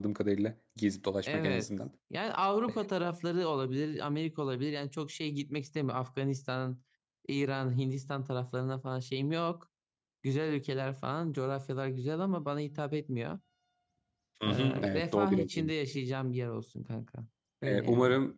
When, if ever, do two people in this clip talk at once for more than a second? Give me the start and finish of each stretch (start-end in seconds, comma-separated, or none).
14.5-15.7